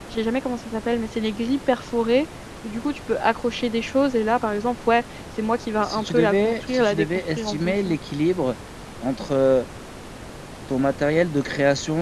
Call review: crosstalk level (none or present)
present